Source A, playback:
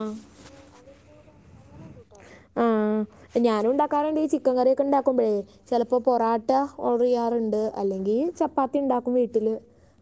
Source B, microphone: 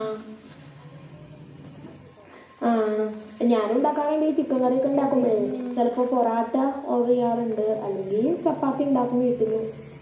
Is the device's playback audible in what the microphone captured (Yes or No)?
Yes